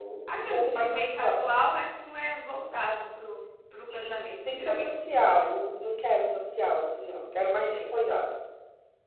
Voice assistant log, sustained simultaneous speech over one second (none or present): present